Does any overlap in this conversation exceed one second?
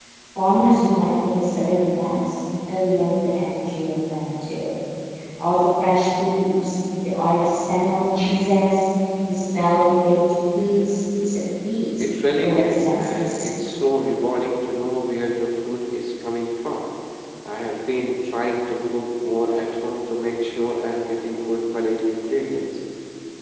Yes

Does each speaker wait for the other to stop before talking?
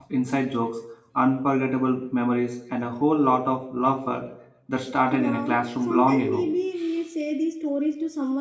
No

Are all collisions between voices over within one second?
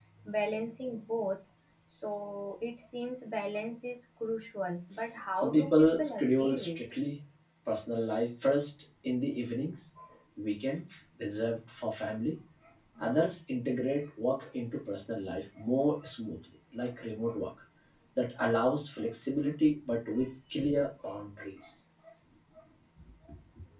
No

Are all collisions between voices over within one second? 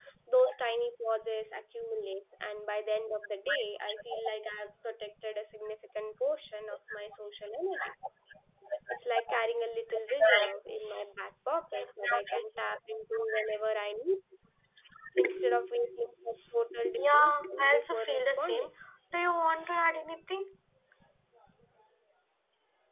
No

